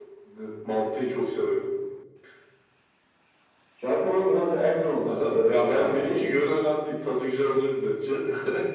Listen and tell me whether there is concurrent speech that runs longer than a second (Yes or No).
Yes